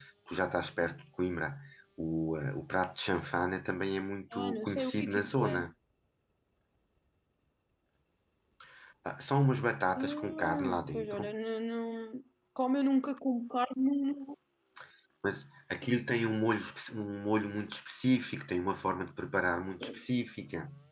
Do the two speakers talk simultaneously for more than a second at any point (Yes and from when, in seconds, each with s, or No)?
Yes, from 4.3 s